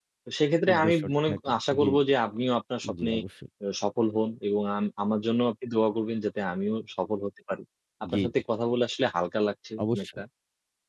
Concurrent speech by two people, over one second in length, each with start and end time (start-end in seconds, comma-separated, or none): 0.7-2.0